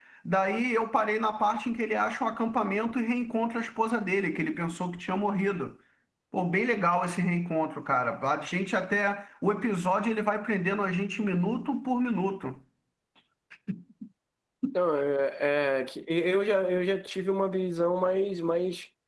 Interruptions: none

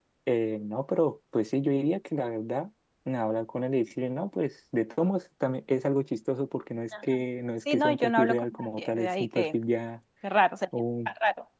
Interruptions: present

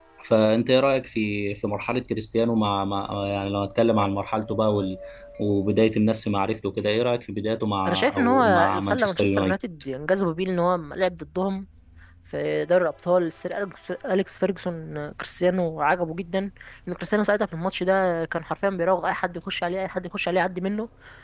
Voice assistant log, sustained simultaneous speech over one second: present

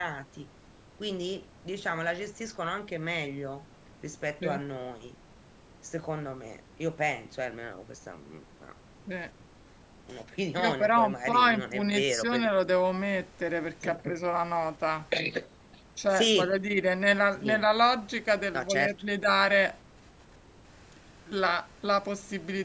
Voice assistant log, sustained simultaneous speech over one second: present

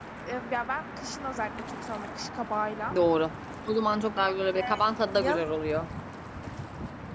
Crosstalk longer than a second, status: none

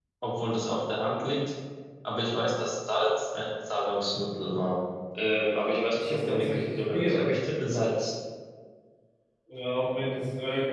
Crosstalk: present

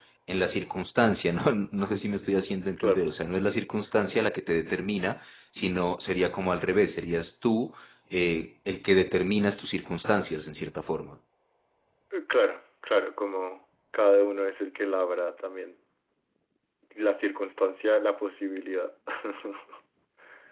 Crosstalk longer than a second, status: none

